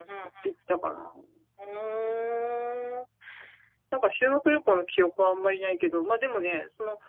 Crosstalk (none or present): none